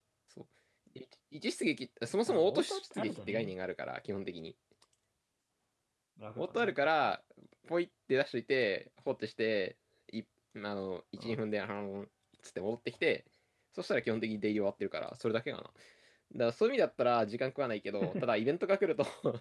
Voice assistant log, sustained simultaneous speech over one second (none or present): present